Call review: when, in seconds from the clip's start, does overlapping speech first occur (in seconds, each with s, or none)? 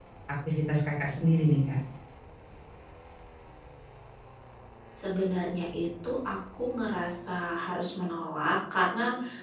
none